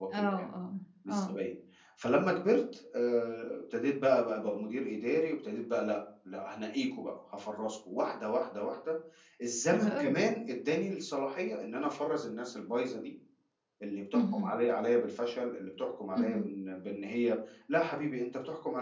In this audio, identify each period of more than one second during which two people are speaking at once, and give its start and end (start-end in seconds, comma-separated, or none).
none